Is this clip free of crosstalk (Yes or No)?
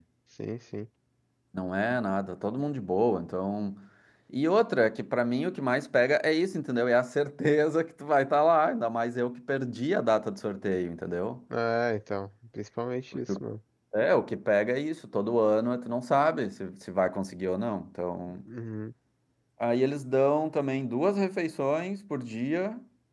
Yes